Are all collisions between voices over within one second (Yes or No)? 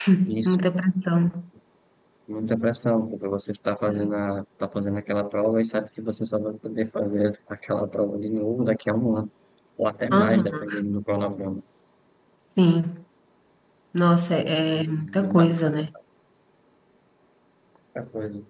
No